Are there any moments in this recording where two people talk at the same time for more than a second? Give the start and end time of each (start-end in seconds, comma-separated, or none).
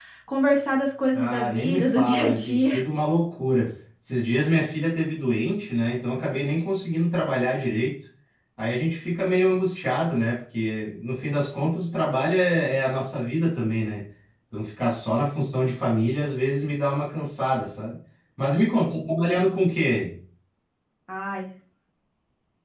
1.1-2.8